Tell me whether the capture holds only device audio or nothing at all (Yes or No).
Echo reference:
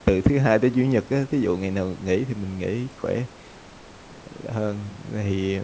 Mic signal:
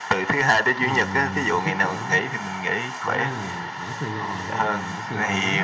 No